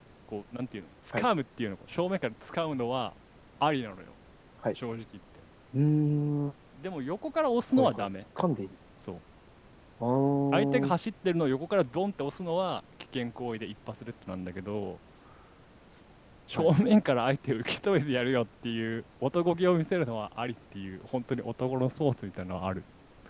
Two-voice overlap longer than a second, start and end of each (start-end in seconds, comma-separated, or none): none